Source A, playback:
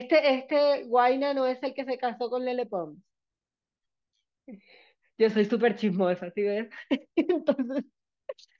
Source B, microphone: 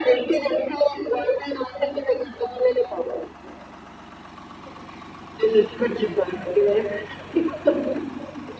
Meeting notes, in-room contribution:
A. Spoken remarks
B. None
B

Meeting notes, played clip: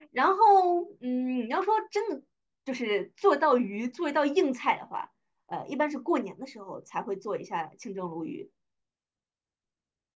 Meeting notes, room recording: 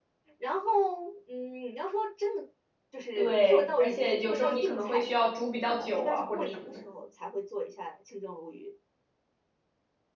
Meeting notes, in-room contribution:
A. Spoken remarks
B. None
A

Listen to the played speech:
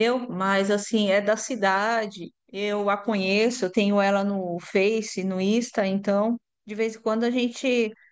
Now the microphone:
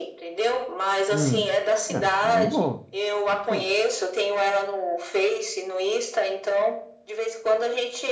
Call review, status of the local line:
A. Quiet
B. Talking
B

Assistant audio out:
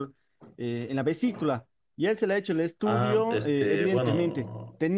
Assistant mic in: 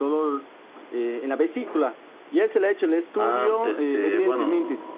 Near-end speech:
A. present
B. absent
B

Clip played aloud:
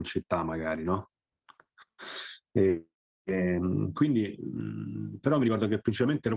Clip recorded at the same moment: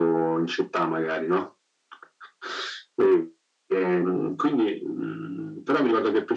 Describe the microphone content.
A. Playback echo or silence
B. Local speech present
A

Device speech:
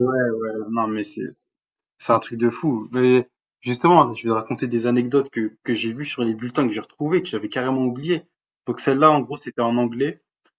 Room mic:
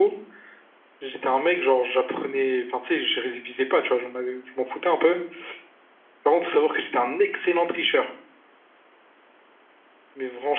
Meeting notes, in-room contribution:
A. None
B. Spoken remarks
B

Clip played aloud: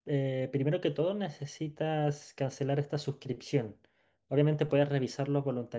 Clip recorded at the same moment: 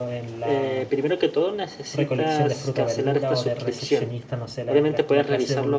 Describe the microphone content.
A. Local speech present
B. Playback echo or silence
A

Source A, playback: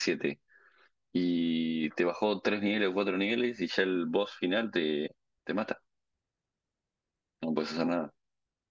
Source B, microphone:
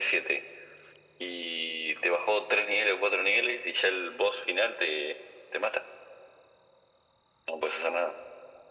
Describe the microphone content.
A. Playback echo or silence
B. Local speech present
A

